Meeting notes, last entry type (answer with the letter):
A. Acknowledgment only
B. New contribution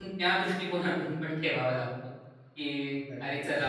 A